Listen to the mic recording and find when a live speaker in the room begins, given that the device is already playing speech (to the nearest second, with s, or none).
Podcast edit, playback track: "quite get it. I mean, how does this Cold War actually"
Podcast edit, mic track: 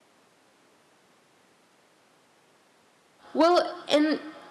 3 s